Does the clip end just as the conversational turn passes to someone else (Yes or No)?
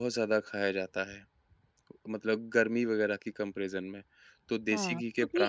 Yes